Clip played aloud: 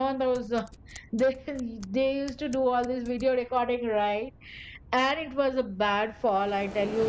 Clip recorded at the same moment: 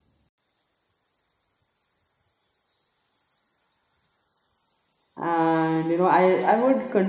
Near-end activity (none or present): present